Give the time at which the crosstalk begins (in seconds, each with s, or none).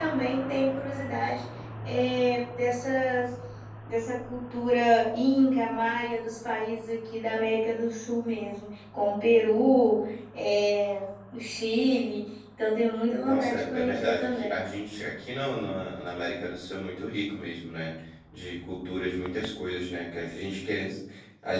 13.2 s